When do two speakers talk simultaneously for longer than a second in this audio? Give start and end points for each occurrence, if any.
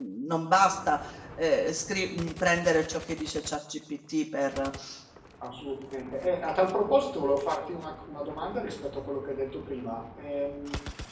none

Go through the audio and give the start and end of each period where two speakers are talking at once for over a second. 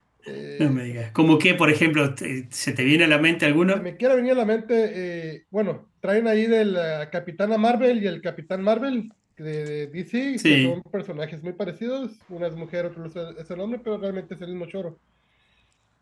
none

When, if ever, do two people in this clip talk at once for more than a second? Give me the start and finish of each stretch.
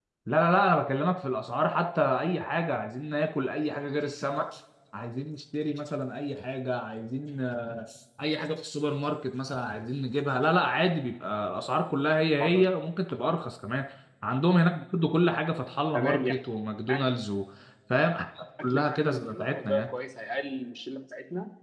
18.6-19.8

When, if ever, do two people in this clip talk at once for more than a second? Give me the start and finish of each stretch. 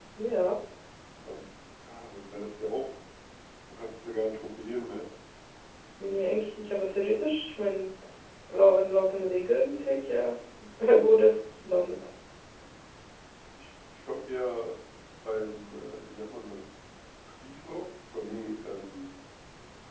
none

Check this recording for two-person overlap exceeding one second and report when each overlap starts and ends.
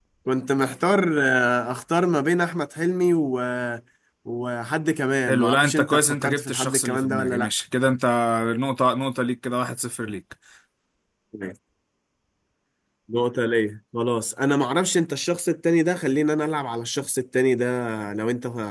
5.3-7.5

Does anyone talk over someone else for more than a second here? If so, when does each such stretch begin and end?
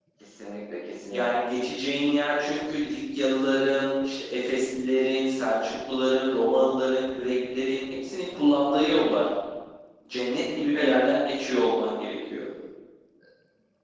none

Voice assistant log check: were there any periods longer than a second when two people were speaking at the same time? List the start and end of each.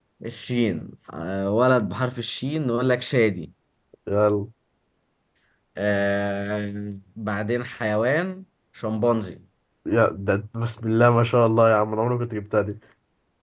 none

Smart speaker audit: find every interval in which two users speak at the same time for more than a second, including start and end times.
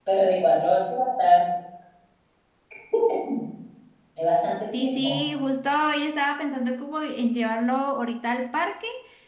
none

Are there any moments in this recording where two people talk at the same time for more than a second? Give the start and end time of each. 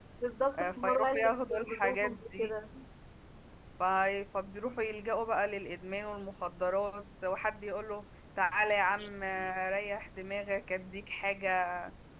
0.6-2.5

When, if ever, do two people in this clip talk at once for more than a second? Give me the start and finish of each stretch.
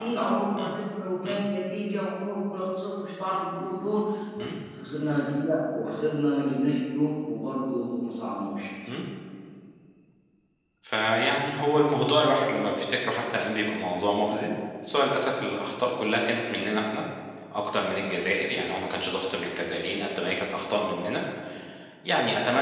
none

